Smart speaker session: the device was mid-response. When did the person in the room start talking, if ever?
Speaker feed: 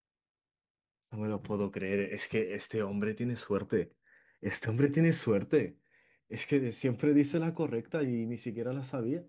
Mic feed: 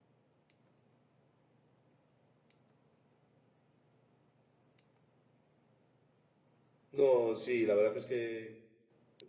6.9 s

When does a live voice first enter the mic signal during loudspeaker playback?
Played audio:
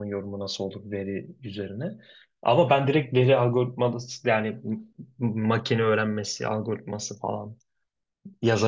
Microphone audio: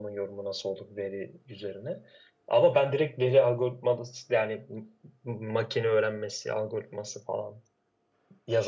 none

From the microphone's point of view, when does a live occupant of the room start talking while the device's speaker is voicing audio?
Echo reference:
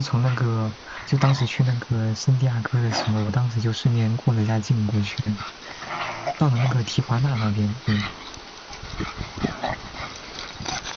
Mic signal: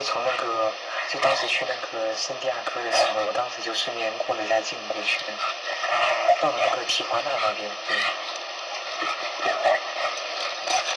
none

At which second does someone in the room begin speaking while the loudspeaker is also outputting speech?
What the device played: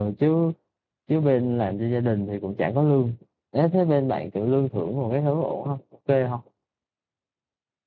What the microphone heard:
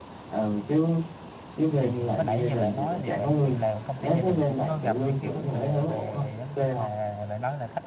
1.8 s

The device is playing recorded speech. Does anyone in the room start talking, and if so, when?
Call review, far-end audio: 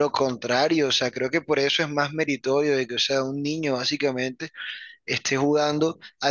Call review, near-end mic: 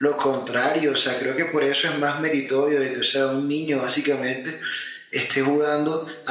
none

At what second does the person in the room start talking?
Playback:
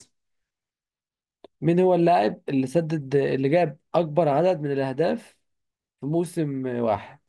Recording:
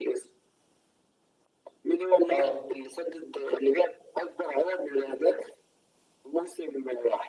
2.3 s

